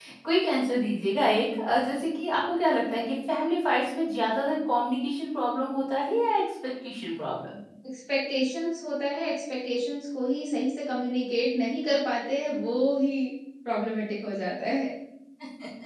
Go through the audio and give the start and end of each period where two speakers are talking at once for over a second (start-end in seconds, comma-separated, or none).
none